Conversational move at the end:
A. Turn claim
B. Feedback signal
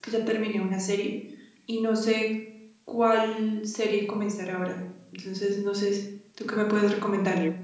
A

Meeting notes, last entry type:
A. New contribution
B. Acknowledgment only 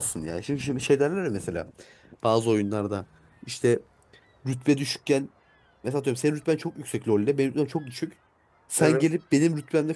B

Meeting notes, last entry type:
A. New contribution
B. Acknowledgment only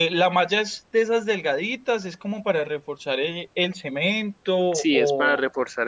A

